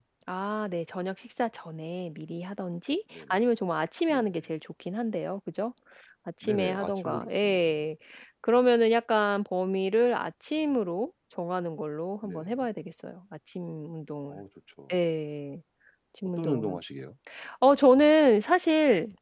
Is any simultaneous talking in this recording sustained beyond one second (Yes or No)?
Yes